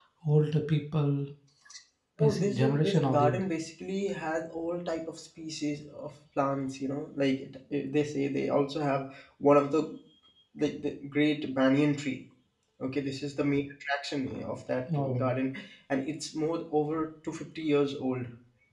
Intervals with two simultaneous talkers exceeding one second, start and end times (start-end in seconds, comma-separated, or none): 2.2-3.4